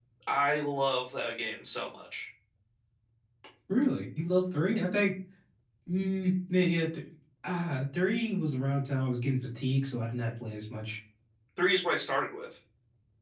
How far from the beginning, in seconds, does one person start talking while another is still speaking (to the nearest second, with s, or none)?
none